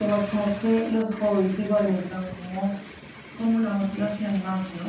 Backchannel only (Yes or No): Yes